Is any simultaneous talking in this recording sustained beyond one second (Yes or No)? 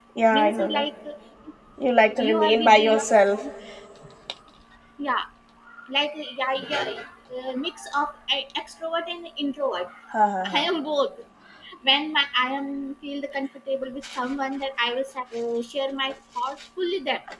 Yes